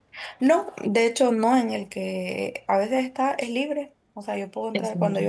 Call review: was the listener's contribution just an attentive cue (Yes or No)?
Yes